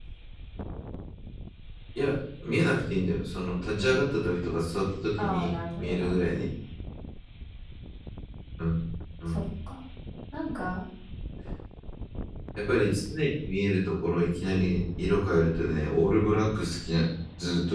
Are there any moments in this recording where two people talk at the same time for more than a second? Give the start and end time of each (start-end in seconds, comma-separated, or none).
5.2-6.4